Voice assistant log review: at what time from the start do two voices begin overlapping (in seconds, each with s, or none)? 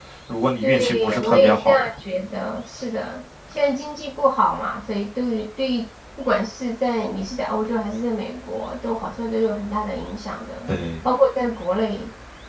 0.6 s